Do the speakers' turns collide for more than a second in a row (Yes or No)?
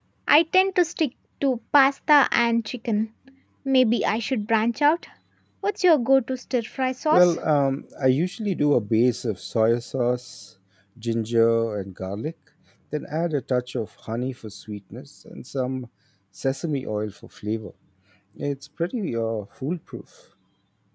No